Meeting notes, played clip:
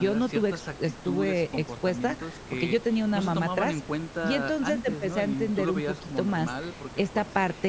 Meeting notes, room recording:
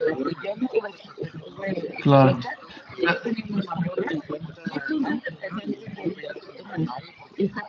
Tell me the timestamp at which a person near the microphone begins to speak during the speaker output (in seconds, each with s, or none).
2.0 s